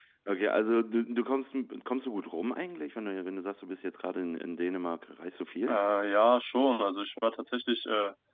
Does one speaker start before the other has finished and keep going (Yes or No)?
No